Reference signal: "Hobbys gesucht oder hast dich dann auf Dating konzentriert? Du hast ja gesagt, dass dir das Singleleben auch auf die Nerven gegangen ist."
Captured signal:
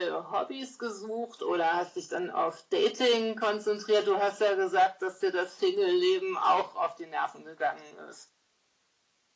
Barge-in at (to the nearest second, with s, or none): none